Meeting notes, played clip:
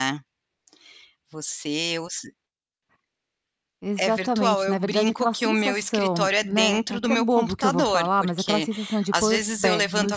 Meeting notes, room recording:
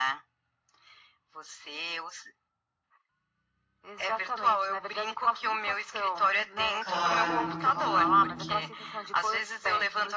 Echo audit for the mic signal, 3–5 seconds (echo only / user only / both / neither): echo only